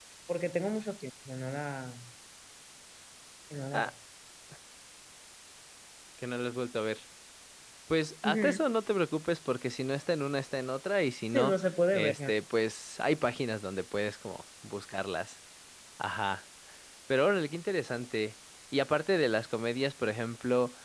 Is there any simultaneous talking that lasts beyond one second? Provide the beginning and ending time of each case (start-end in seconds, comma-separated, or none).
none